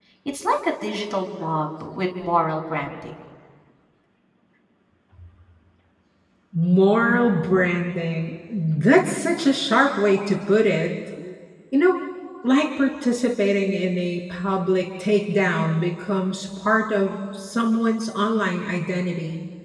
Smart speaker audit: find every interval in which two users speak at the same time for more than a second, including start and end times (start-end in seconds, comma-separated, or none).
none